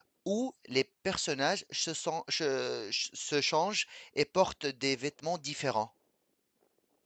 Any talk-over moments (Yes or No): No